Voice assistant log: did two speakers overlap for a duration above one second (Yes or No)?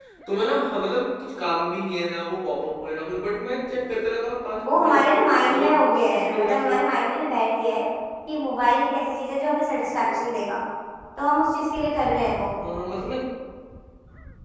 Yes